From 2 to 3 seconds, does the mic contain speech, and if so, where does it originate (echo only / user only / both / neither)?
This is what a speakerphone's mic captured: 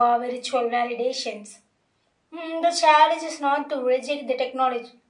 echo only